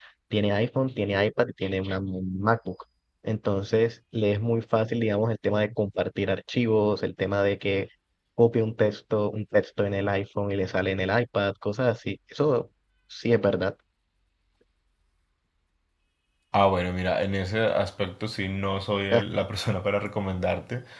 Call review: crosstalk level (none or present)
none